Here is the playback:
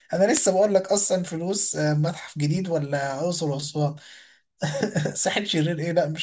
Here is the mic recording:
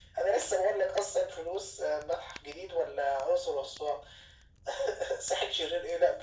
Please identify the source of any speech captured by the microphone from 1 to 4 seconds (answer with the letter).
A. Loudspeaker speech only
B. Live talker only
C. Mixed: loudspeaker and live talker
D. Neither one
A